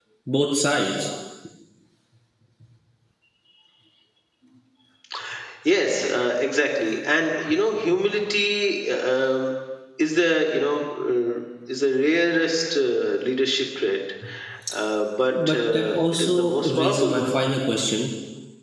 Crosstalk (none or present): present